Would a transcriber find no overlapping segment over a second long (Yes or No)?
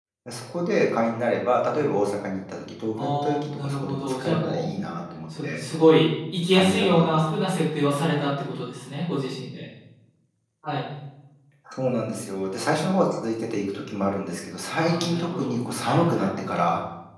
No